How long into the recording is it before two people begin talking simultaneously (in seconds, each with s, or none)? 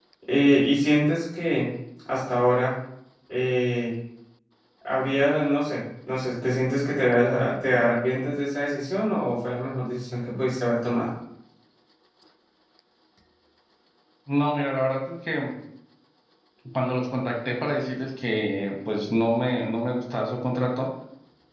none